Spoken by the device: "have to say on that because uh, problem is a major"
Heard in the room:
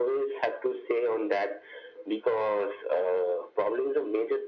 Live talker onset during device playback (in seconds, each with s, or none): none